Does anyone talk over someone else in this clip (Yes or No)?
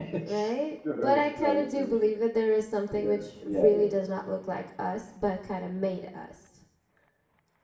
Yes